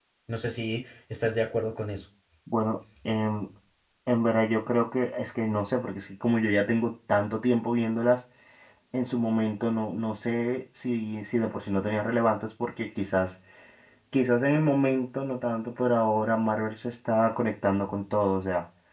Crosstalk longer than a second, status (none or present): none